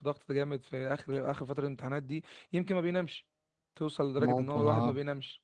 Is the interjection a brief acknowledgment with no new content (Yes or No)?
Yes